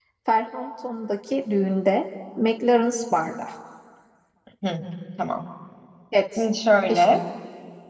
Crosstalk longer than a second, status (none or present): none